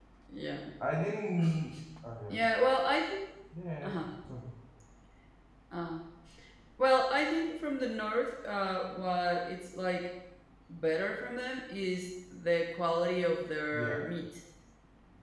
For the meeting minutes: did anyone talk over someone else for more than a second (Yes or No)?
No